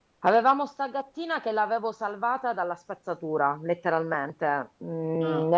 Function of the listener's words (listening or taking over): listening